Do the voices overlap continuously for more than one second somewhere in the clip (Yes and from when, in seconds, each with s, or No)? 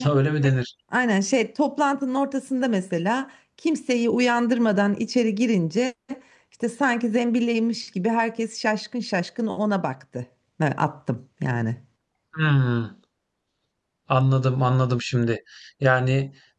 No